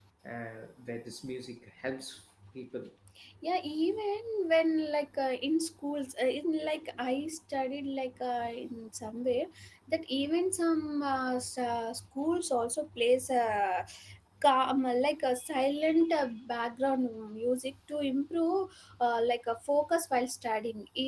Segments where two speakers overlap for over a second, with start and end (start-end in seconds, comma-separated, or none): none